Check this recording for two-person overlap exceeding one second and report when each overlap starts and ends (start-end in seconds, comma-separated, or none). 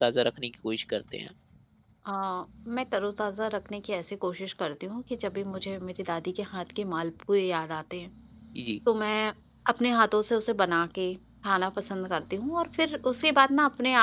none